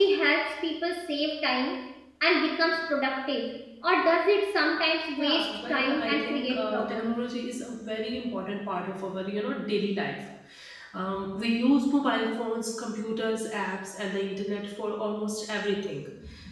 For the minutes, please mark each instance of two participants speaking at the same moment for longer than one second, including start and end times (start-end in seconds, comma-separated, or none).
5.1-7.2